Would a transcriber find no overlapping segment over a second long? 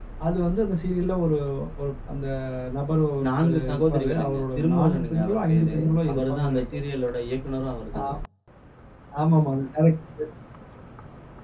No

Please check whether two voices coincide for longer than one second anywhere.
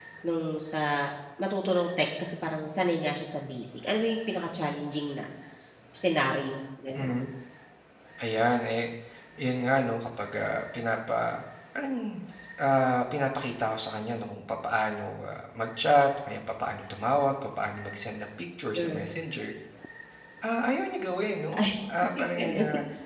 No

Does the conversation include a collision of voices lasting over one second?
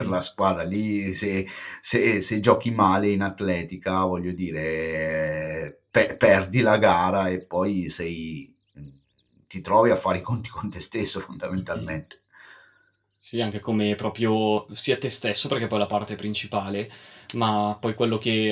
No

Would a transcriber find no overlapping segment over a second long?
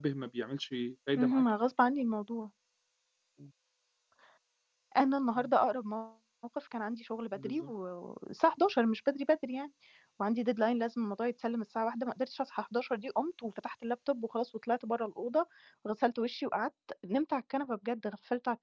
Yes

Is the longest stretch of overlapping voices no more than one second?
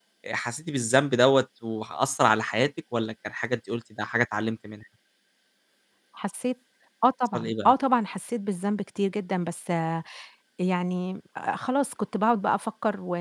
Yes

